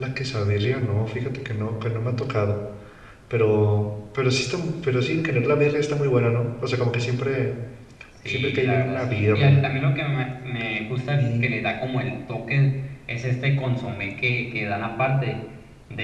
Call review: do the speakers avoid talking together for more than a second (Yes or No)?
No